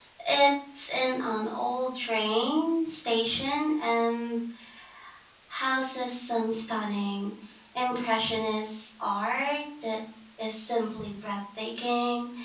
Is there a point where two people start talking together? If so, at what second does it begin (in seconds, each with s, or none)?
none